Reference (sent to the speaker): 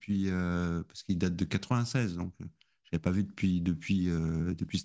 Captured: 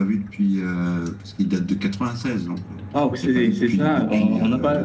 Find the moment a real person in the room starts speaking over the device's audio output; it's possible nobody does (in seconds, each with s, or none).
2.9 s